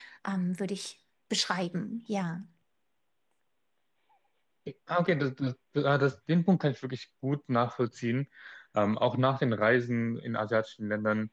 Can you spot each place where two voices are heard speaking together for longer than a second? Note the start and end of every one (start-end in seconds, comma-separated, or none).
none